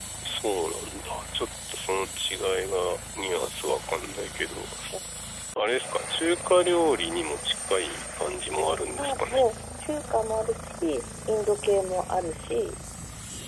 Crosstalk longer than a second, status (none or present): none